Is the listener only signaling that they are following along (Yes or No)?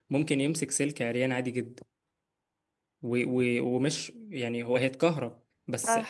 Yes